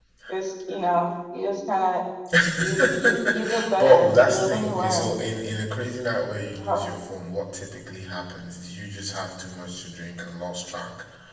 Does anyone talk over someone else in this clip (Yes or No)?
Yes